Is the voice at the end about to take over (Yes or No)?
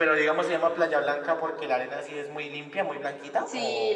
Yes